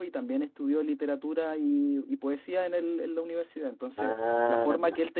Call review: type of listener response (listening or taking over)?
listening